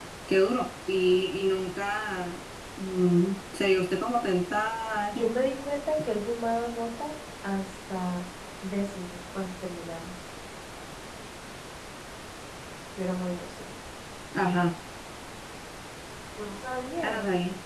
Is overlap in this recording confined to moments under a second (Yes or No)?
Yes